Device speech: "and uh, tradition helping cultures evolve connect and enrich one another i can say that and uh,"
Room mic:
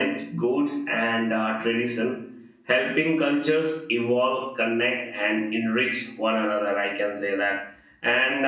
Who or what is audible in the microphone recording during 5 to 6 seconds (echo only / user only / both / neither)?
echo only